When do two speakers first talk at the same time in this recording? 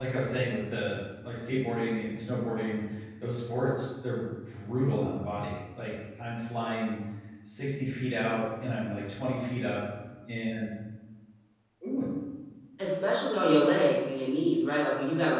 none

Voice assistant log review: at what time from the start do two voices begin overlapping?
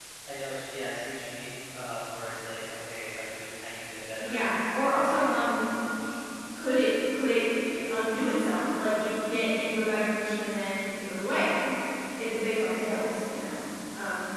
4 s

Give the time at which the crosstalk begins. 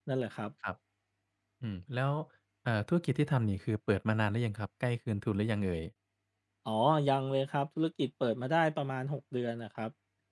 none

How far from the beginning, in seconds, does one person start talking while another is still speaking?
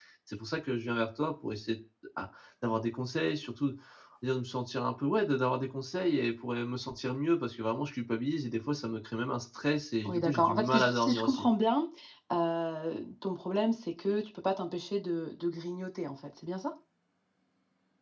10 s

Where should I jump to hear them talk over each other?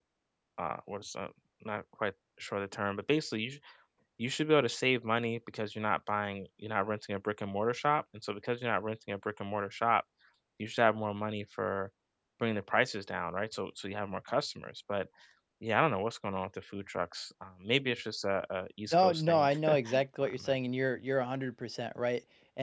19 s

